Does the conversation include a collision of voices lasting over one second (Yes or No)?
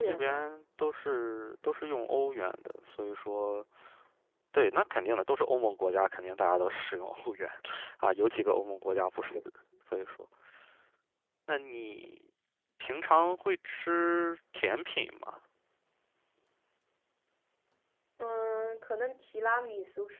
No